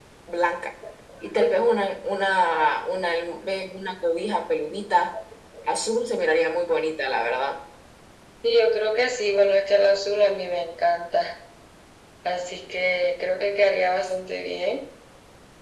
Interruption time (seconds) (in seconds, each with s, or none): none